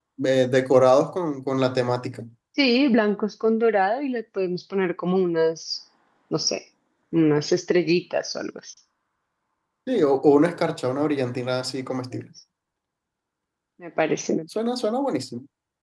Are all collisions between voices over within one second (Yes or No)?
Yes